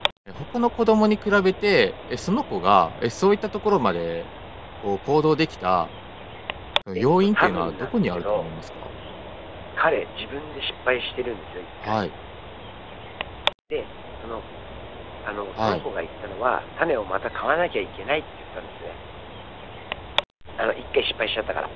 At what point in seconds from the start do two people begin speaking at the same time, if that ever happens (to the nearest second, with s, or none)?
7 s